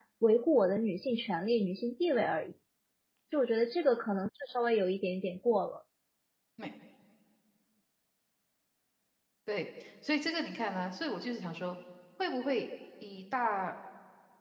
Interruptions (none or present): none